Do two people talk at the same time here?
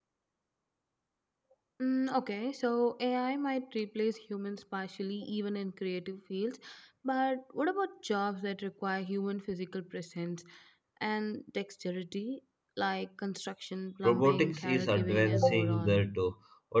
Yes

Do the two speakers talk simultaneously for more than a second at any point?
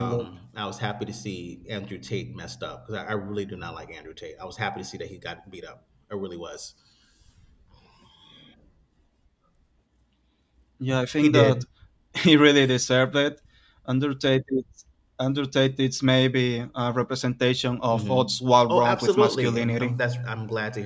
Yes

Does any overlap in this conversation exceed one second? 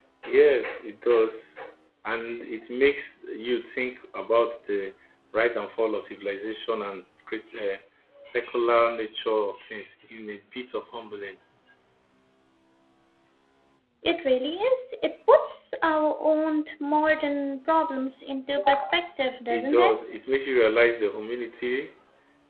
No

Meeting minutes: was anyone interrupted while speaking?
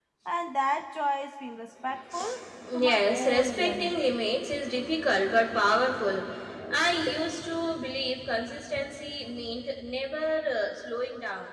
Yes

